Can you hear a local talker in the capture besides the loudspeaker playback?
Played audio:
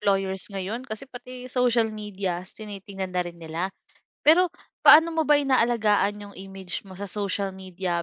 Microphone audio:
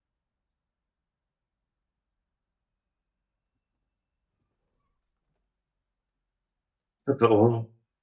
Yes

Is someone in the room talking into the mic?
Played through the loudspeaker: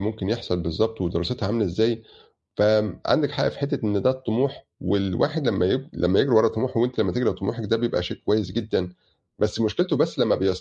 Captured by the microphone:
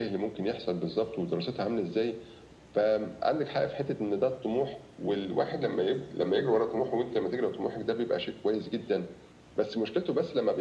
No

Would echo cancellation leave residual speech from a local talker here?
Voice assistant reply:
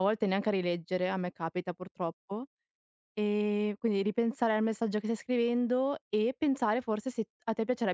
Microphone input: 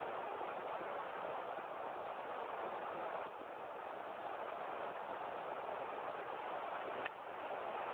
No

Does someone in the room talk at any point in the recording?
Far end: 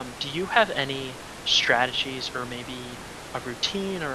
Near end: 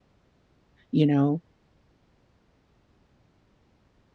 Yes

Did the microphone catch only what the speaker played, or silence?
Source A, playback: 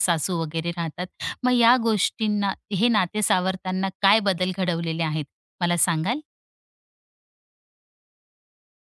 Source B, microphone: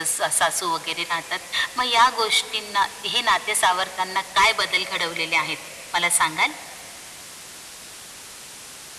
Yes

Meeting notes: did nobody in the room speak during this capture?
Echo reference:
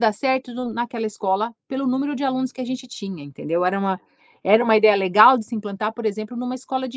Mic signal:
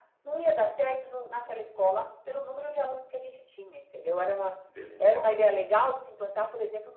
No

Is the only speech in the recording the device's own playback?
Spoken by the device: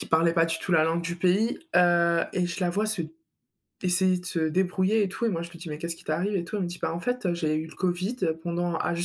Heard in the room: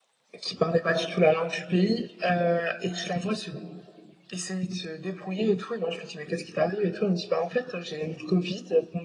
Yes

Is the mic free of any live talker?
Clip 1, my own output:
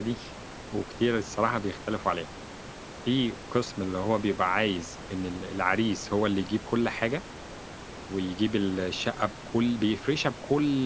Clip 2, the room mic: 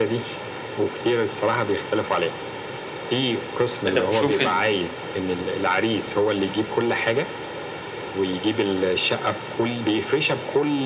No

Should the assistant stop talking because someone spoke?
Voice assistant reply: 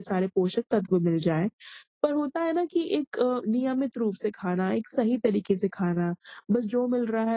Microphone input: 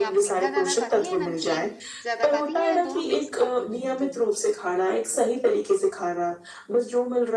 Yes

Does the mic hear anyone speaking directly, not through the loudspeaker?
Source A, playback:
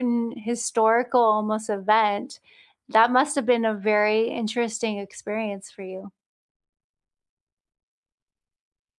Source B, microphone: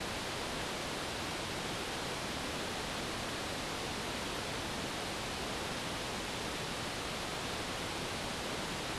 No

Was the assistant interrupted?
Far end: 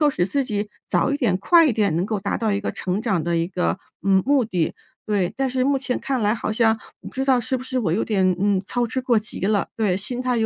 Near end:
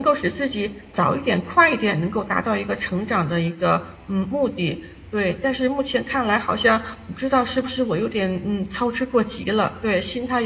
No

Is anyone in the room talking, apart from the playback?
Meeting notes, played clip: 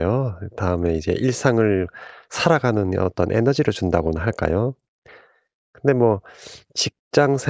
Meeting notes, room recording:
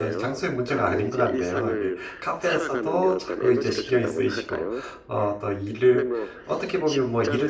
Yes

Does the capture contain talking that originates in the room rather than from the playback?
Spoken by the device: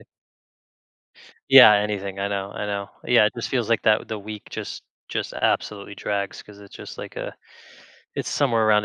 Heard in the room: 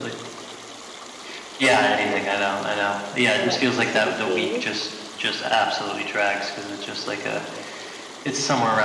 Yes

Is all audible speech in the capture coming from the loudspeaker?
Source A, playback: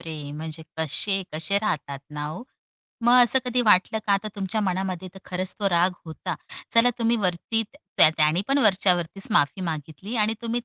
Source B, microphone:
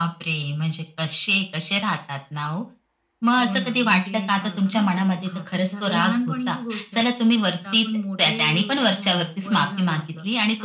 No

